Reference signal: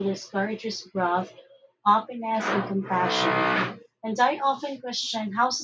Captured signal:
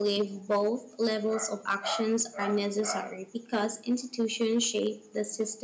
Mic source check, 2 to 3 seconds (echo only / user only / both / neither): user only